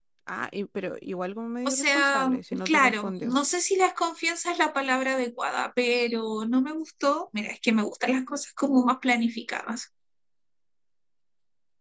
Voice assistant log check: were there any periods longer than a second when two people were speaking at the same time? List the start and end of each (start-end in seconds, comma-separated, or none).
1.6-3.4